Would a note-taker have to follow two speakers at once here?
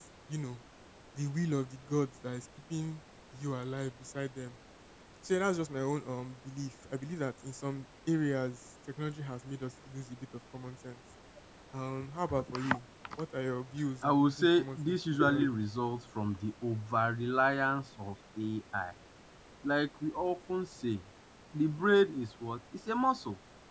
Yes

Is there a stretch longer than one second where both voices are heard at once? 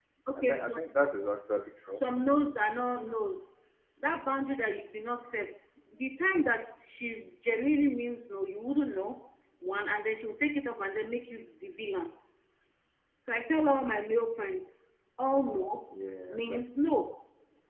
No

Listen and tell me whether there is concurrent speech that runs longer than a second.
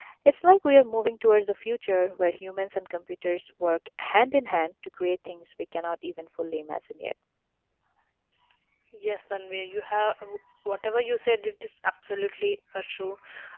No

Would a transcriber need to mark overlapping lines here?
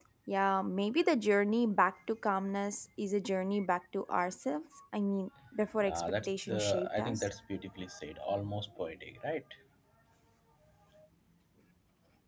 Yes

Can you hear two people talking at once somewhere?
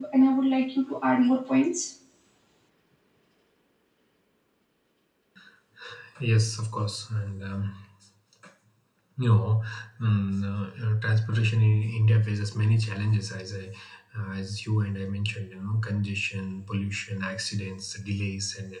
No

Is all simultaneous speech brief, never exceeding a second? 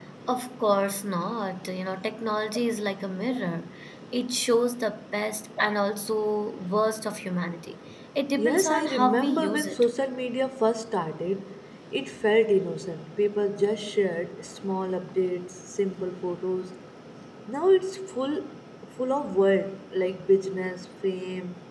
No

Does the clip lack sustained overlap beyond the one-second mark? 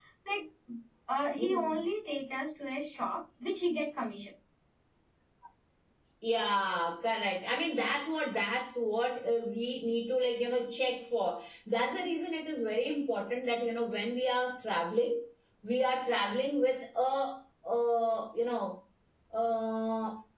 Yes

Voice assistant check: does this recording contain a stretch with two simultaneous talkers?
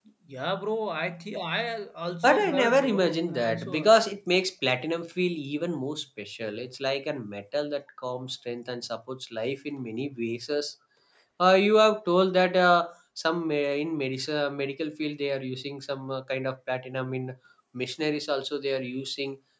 Yes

